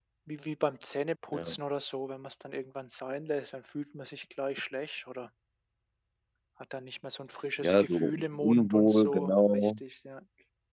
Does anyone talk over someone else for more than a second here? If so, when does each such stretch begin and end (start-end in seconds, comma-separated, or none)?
7.6-9.7